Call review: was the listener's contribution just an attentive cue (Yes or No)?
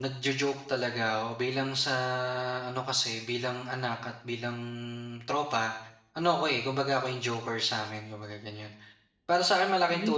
Yes